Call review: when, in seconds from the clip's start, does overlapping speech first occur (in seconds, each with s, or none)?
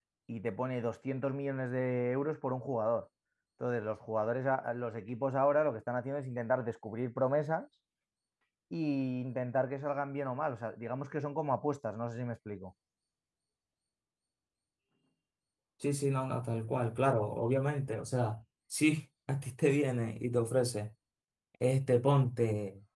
none